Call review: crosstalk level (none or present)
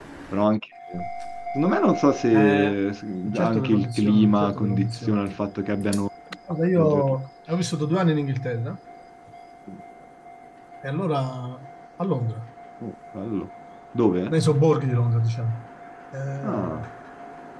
present